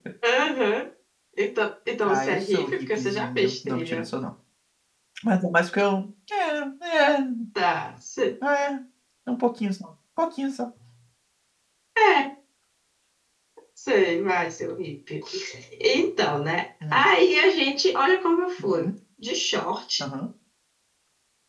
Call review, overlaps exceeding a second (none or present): present